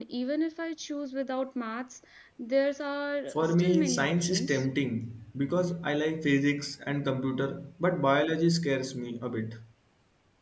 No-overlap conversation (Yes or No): No